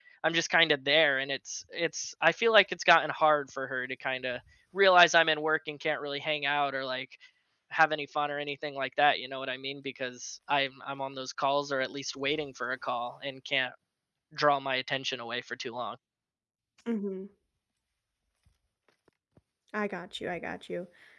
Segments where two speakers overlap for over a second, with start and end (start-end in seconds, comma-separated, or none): none